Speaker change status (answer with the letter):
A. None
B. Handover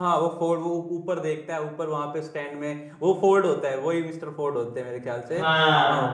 B